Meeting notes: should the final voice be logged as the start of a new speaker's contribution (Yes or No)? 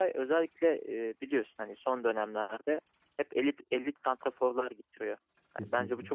No